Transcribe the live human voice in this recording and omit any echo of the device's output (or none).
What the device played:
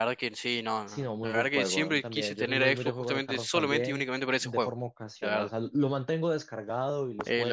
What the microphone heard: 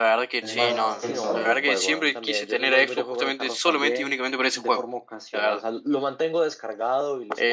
es más, más Team Sony.